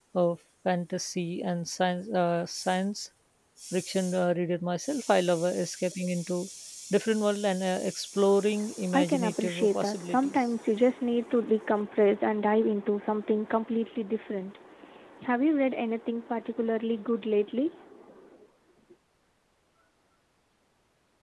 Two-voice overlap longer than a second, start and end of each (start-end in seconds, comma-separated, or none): 8.9-10.4